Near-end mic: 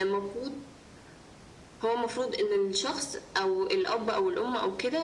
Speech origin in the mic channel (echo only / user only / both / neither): echo only